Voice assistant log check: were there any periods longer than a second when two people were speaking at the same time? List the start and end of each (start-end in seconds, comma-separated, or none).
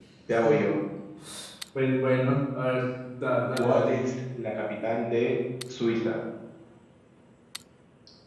none